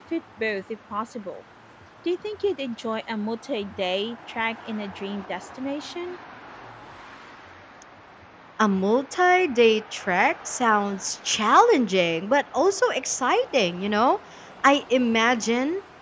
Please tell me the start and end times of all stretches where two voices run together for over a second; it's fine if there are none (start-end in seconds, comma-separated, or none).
none